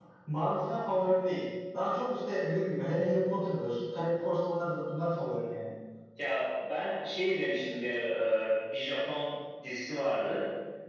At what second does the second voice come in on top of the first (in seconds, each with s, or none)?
none